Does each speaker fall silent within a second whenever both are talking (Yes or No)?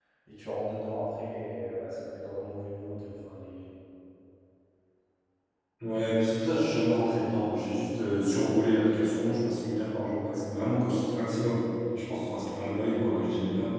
Yes